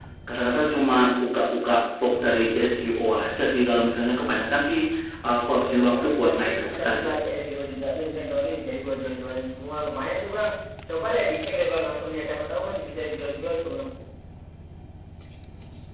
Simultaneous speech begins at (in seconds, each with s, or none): 5.6 s